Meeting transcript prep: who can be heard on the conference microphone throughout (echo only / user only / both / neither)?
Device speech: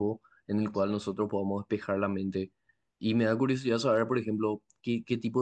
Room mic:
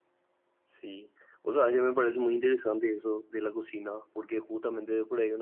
user only